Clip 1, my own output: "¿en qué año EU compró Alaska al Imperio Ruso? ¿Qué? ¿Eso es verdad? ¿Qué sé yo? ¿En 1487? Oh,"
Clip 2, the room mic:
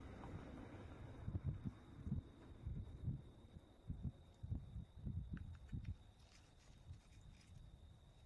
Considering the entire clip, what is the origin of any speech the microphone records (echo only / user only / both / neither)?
neither